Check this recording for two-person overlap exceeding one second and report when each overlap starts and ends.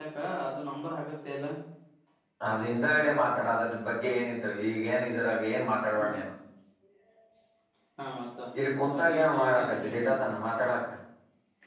8.8-10.1

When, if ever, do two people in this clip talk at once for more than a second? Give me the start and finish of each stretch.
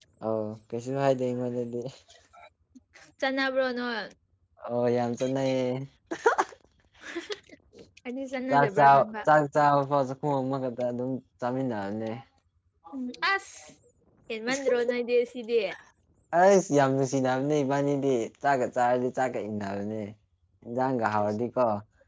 none

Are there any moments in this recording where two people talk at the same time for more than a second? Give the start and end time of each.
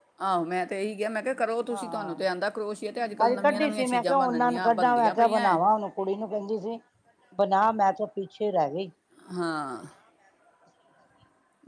3.2-5.6

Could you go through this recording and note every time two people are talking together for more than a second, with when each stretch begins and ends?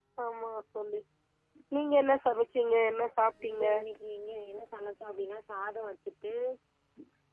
none

